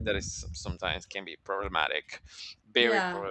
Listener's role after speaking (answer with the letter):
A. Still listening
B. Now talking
B